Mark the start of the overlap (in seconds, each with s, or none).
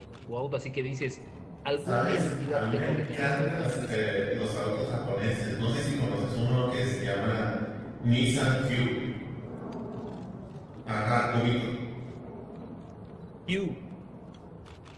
1.8 s